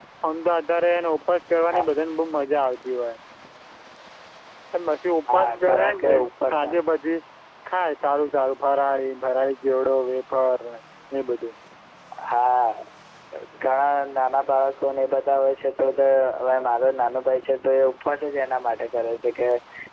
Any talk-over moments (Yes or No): Yes